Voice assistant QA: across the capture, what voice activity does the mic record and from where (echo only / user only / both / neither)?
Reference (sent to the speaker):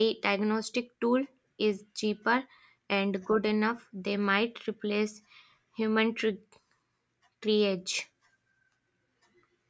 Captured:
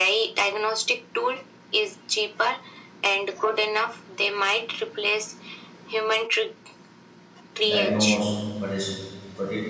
both